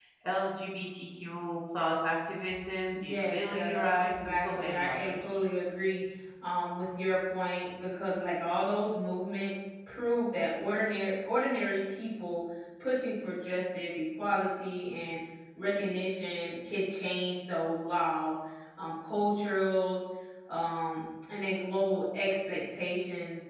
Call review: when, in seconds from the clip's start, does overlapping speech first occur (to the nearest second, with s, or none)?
3 s